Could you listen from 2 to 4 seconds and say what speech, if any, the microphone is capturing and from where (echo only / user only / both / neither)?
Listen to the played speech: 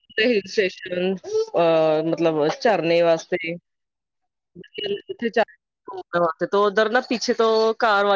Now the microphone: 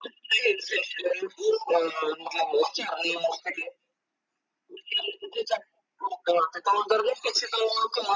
echo only